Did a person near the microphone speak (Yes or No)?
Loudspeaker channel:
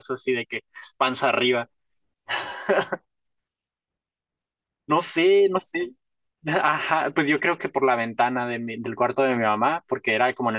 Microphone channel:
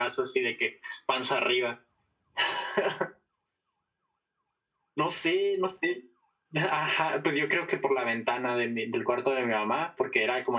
No